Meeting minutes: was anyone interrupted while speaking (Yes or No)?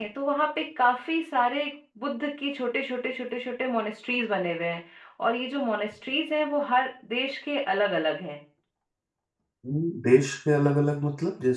No